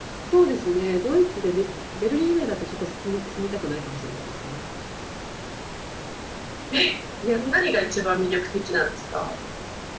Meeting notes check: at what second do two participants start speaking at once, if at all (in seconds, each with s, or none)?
none